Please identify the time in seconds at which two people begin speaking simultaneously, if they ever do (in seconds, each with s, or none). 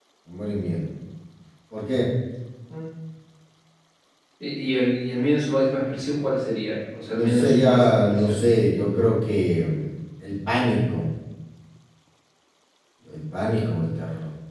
7.1 s